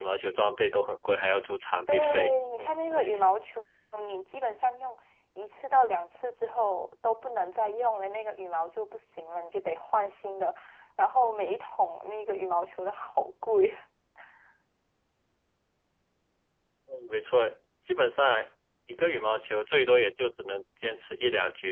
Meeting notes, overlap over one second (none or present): present